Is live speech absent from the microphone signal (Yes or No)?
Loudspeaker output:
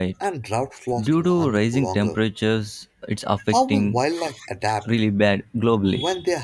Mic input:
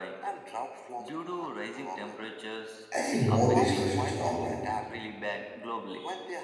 No